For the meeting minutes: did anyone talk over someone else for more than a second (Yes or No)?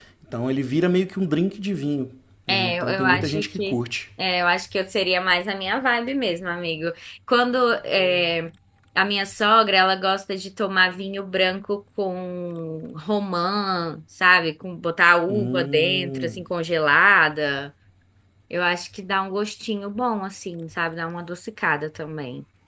Yes